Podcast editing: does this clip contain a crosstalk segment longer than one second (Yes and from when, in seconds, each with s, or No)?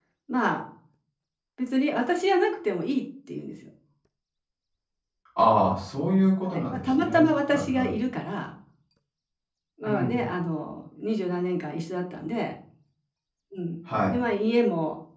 Yes, from 6.4 s